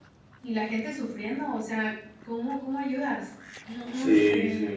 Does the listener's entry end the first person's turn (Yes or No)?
Yes